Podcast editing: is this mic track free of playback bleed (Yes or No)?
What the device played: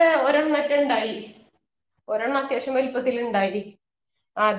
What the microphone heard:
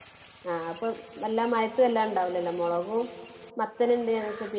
Yes